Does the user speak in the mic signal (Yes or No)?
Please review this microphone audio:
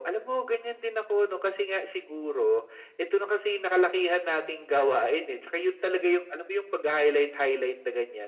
No